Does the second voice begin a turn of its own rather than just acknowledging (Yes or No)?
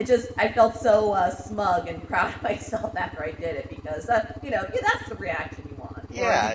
Yes